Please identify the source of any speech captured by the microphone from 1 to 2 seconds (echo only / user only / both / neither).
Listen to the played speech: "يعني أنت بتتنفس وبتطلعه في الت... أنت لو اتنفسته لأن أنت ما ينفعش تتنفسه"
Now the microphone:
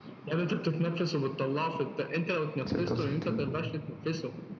echo only